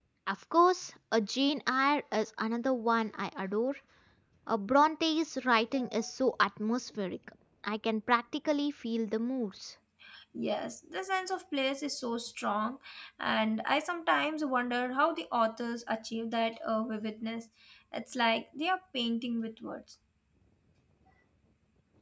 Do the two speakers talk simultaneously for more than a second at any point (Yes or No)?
No